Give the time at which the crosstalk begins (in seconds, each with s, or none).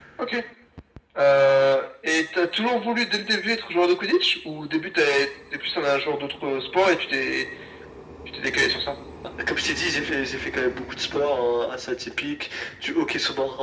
none